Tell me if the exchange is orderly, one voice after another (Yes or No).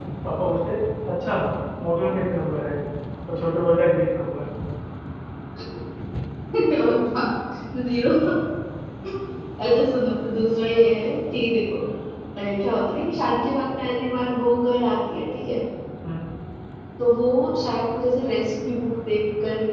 Yes